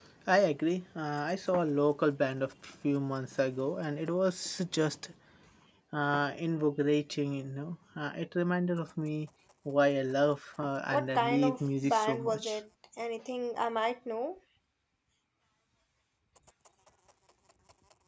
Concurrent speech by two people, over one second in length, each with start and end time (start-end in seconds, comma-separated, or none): 10.9-12.6